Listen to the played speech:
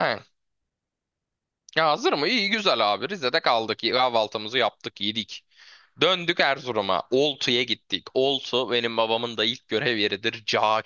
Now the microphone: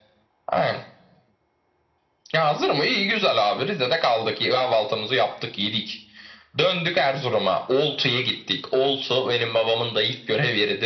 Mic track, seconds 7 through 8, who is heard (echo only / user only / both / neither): echo only